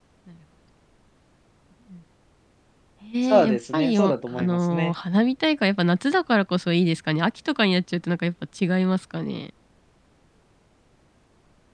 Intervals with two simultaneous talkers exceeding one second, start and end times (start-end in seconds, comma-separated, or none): 3.3-4.9